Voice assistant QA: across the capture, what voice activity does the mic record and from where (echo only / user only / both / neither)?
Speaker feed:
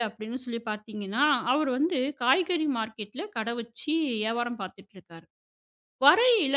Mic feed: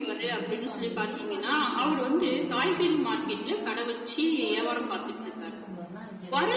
both